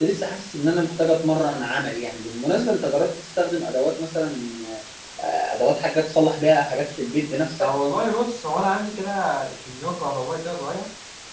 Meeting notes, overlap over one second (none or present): none